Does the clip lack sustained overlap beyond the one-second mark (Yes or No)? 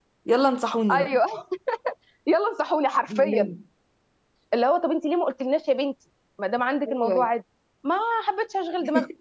Yes